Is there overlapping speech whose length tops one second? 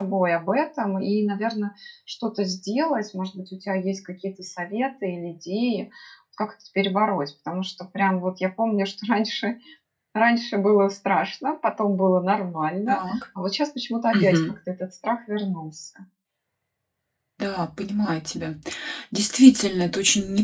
No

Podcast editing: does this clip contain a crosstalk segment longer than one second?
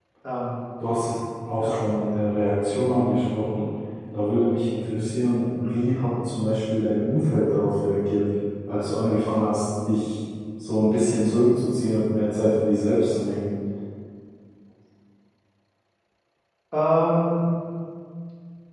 No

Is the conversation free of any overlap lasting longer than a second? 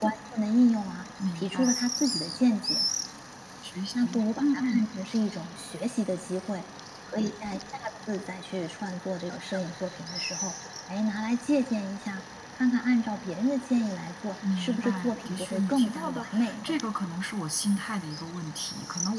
No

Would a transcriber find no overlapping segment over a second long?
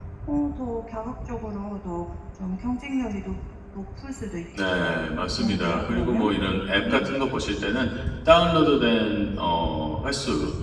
No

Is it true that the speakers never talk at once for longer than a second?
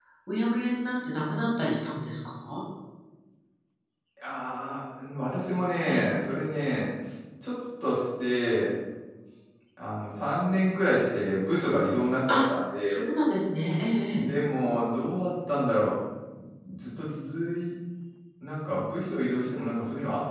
Yes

